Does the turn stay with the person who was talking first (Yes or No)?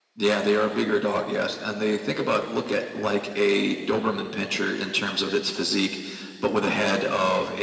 Yes